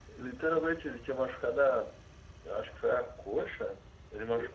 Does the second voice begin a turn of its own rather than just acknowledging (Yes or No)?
No